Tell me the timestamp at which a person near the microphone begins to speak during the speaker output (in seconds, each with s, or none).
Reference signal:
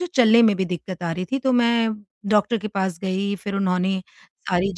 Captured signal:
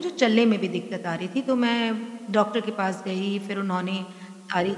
none